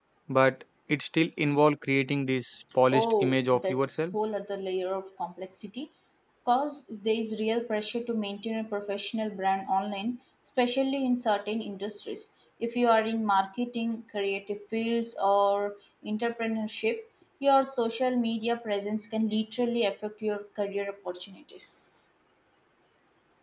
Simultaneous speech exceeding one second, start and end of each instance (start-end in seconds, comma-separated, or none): 2.9-4.1